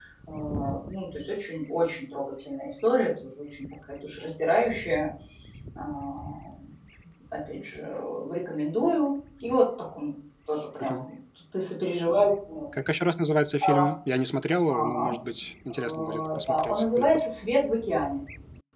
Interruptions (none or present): present